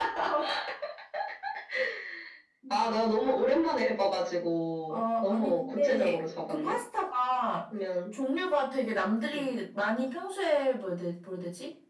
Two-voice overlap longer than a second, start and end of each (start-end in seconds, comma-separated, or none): 4.9-6.8